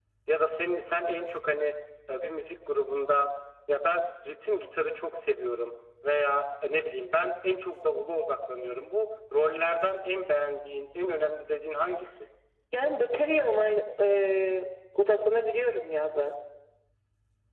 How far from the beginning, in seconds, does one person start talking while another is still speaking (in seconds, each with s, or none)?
none